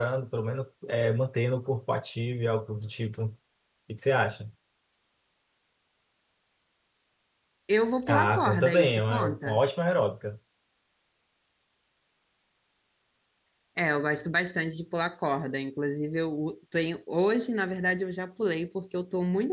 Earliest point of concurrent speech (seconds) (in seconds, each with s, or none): 8.1 s